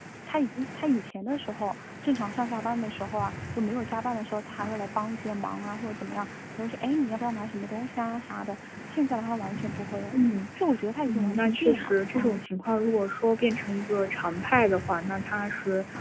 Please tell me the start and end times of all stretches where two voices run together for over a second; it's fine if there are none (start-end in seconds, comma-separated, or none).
11.1-12.4